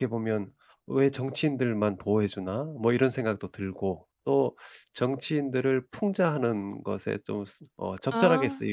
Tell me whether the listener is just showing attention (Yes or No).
Yes